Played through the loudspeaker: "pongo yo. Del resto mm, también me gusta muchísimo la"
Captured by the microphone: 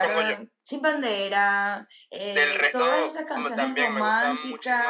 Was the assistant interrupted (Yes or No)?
Yes